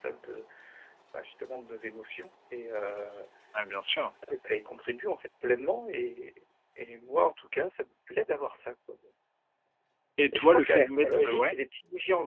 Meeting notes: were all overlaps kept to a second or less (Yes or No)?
No